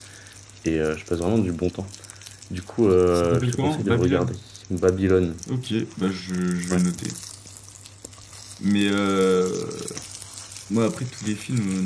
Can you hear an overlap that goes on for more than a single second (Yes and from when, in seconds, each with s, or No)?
Yes, from 3.1 s